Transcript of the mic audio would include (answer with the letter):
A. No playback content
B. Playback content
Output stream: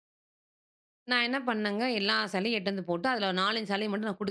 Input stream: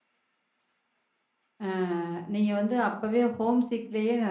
A